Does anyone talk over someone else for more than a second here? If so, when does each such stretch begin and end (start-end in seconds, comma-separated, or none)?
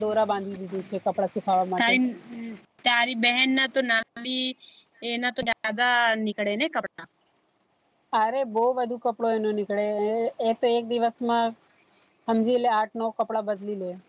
none